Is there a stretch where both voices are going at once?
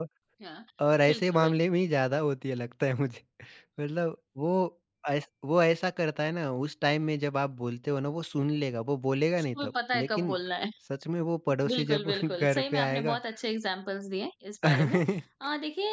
Yes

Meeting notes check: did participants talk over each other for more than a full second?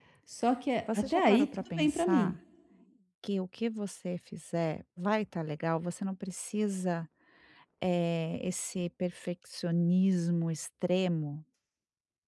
Yes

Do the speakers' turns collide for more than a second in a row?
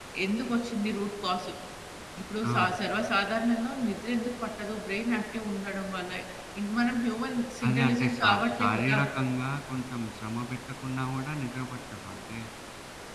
Yes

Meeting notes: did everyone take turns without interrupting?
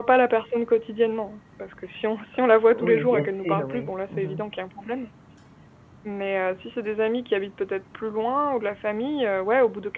No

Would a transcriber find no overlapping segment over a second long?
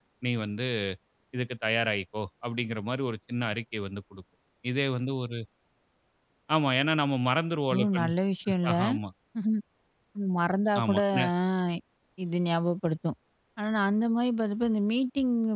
Yes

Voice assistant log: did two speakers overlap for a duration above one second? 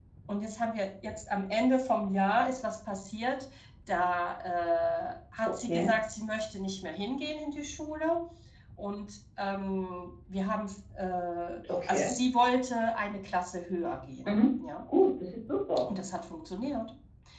No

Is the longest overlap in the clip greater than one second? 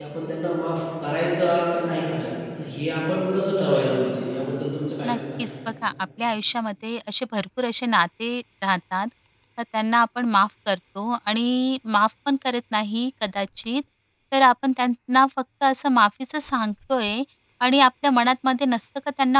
No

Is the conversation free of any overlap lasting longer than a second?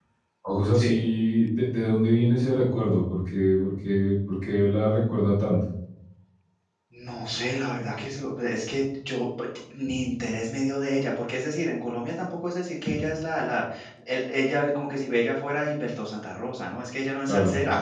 Yes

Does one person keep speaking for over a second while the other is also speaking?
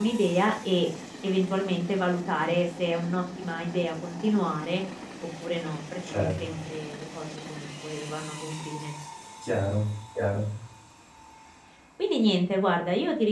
No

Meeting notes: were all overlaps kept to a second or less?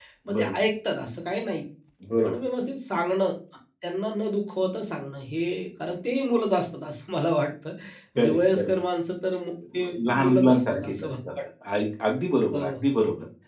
No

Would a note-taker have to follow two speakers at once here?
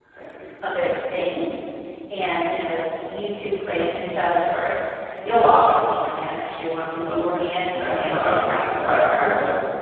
Yes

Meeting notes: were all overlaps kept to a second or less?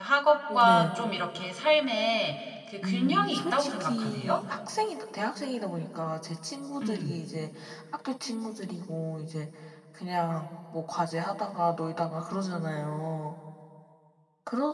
No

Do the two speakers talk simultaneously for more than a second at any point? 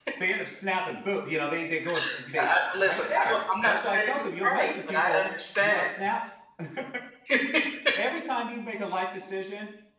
Yes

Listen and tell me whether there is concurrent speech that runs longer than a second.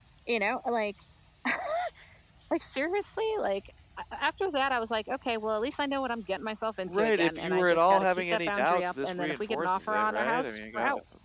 Yes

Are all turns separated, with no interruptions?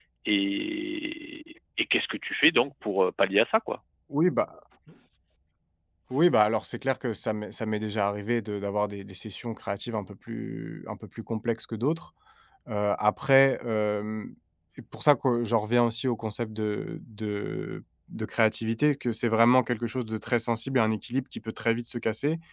Yes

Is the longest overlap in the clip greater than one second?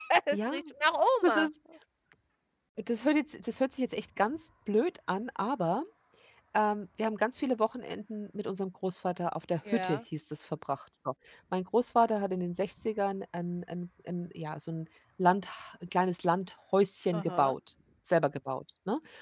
No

